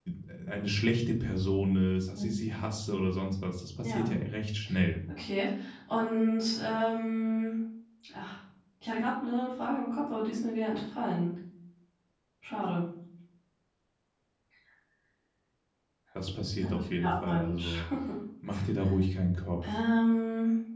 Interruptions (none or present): present